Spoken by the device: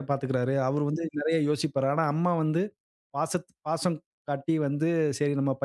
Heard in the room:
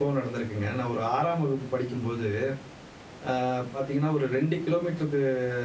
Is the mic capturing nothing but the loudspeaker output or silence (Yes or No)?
No